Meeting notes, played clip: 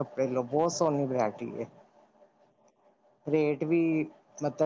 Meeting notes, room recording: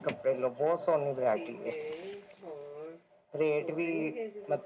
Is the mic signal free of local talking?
No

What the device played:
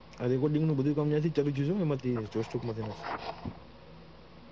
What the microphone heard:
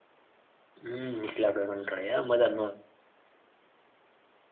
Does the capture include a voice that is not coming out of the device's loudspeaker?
Yes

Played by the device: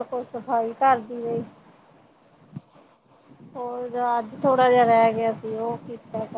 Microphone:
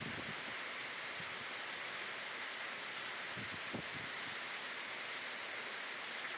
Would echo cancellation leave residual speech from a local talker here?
No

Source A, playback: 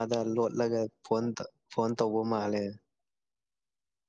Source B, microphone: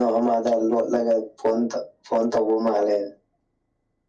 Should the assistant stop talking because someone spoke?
No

